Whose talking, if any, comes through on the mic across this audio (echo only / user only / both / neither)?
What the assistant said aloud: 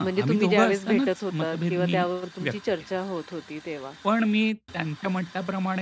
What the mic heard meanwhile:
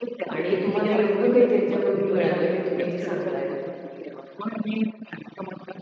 both